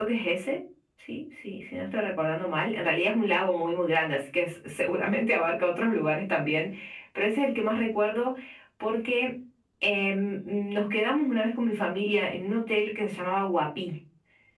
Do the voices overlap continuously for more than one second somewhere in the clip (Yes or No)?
No